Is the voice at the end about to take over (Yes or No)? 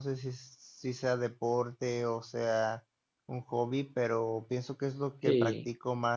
No